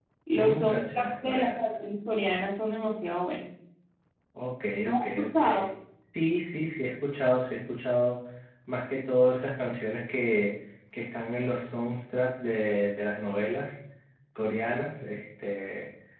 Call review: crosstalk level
present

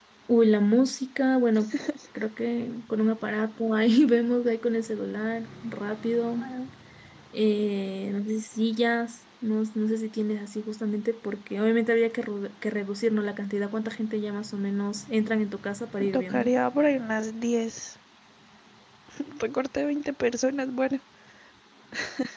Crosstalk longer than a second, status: none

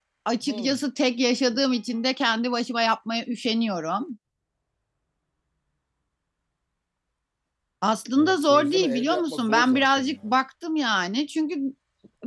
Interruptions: present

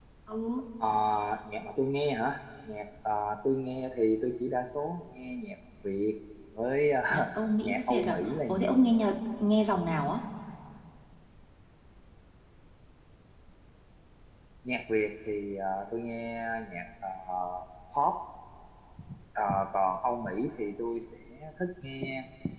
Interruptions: present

